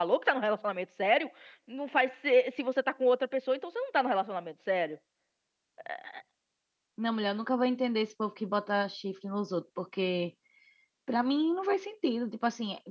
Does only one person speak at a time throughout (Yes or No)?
Yes